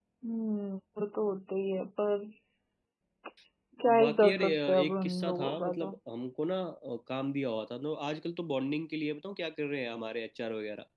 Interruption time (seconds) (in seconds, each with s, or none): 4.0 s